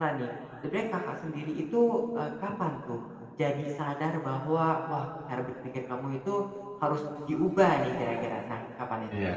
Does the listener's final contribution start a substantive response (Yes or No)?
Yes